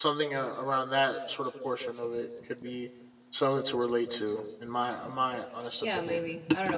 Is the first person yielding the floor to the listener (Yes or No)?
Yes